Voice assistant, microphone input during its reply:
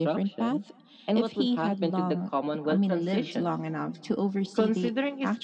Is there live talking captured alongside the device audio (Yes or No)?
No